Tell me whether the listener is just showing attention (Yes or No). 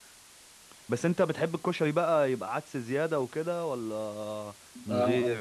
No